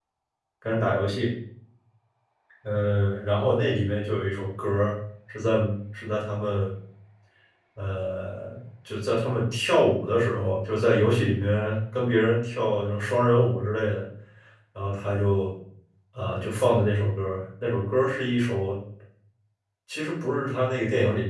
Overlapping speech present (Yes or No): No